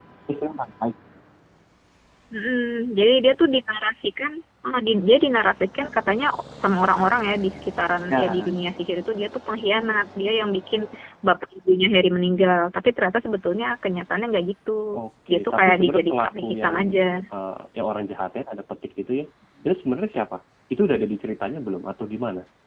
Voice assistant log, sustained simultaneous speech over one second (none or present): present